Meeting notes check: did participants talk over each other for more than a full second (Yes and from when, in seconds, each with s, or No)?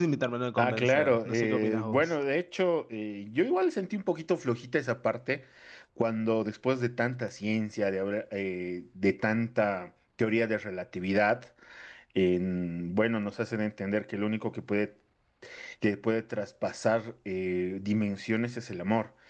Yes, from 0.6 s